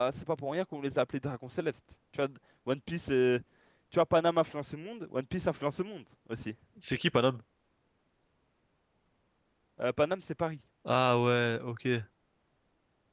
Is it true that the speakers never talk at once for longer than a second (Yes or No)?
Yes